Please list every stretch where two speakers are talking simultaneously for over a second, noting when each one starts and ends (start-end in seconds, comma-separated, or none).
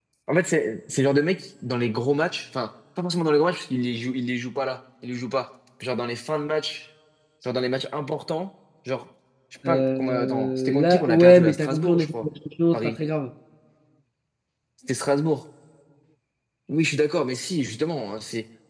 9.7-12.1